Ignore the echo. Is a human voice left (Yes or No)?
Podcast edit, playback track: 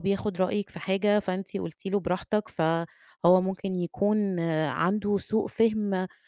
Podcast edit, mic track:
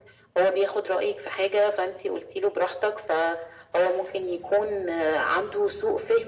No